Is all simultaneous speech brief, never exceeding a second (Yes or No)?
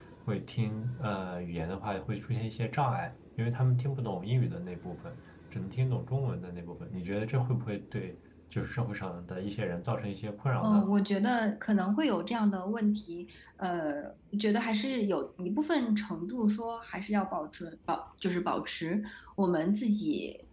Yes